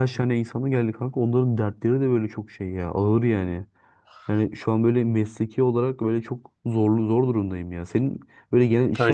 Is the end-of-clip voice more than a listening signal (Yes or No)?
No